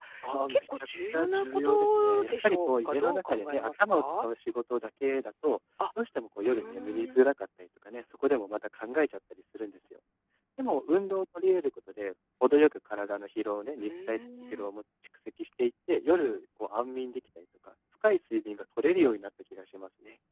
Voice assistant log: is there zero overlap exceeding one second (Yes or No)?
No